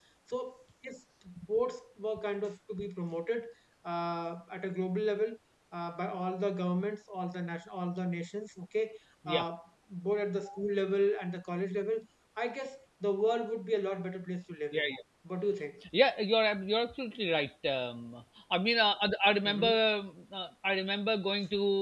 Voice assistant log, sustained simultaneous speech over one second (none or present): none